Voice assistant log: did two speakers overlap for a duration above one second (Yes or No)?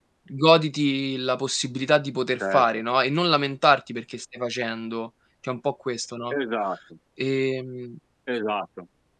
No